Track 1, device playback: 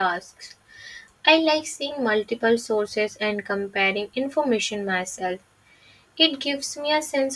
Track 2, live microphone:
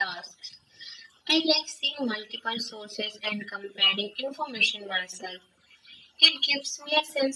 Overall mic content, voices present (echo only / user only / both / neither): echo only